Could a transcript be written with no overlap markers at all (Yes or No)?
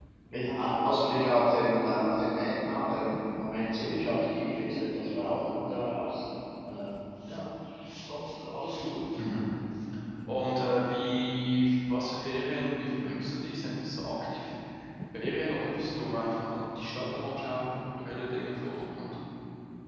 Yes